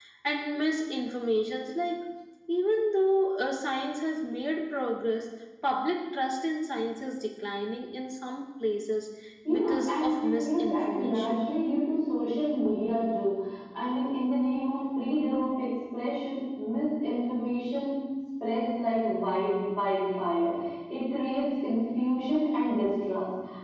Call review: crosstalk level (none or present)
present